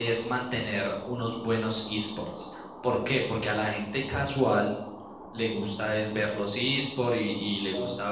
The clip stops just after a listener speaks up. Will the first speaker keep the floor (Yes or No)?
Yes